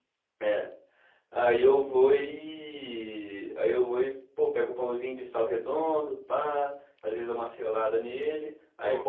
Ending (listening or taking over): listening